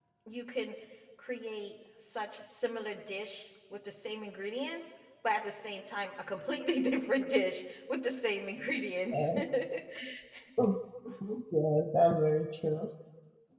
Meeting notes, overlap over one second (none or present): none